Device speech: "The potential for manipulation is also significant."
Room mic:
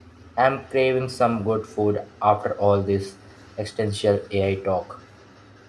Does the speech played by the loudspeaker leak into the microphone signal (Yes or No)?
No